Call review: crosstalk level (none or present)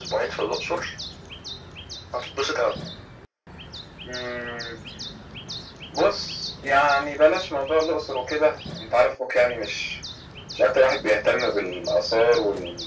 none